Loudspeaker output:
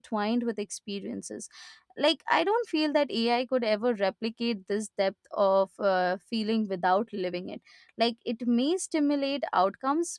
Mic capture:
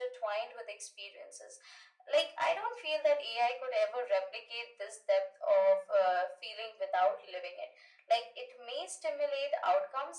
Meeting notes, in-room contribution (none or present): none